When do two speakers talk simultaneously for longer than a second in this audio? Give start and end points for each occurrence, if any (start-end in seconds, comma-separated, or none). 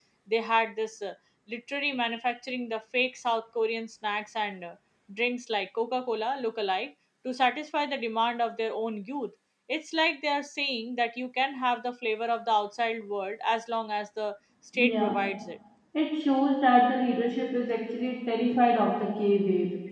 none